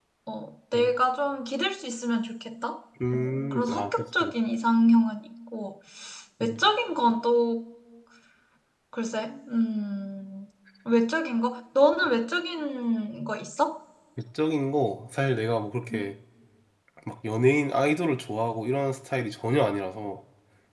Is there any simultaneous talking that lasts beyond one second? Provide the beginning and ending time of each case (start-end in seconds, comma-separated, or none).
3.1-4.3